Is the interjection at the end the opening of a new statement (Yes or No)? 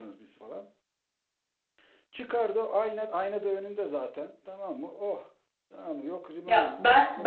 Yes